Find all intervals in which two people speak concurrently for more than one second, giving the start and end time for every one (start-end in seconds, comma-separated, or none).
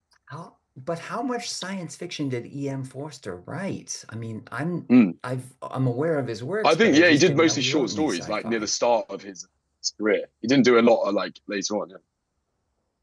6.6-8.7